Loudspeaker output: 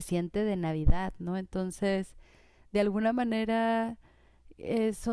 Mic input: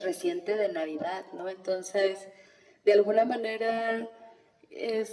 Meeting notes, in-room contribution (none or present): none